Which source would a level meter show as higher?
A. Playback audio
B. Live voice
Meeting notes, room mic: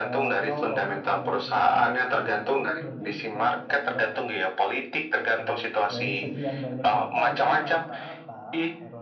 A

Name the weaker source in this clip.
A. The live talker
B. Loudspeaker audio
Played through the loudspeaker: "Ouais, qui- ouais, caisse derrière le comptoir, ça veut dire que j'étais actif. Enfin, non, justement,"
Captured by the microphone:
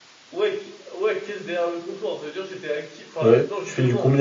B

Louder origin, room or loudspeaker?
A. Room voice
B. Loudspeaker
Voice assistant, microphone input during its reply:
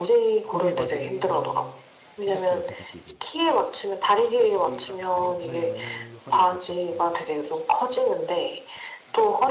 B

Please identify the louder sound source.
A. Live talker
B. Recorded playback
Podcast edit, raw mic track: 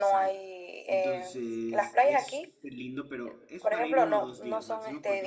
B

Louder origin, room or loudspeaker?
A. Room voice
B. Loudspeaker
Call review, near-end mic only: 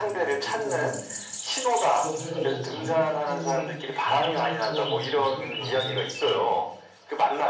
B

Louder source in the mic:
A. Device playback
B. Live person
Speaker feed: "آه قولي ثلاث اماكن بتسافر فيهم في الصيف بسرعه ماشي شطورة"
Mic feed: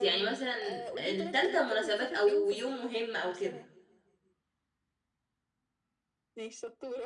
B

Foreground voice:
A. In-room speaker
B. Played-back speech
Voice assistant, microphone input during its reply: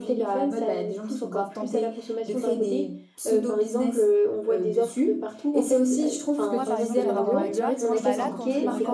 B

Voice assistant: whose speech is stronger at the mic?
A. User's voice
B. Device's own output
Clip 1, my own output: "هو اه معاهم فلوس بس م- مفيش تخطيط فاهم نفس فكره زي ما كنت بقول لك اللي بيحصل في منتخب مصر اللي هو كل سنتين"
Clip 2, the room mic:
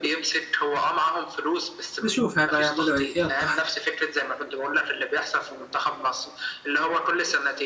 A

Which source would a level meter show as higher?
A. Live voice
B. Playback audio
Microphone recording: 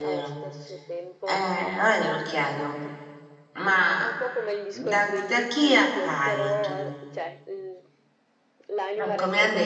A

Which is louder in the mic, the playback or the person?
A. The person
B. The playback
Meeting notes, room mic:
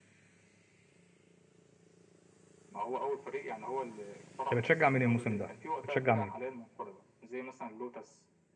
A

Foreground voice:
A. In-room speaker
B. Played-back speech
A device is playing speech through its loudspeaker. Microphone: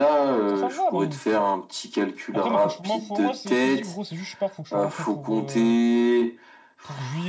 B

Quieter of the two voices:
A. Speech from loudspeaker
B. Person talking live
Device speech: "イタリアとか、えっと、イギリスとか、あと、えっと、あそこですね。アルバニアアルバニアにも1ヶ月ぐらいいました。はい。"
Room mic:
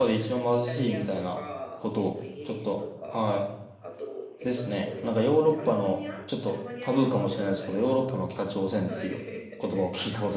A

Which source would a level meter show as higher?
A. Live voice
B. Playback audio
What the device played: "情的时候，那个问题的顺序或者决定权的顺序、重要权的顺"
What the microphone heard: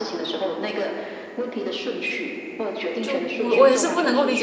A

